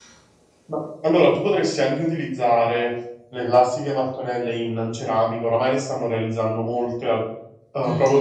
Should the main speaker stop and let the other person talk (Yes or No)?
Yes